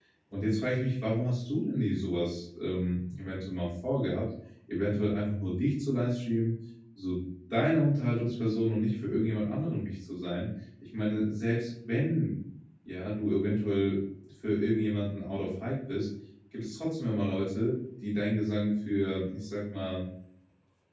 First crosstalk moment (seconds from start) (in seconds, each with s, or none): none